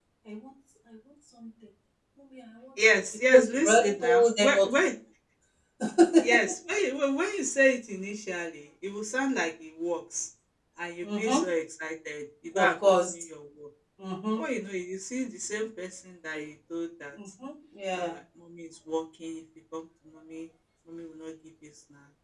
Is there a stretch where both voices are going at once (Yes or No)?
Yes